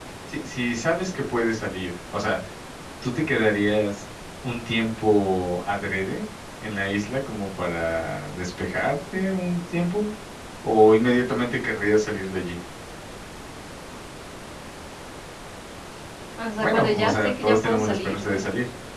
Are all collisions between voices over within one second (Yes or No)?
No